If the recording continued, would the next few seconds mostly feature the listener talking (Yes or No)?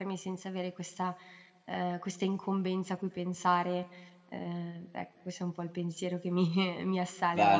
Yes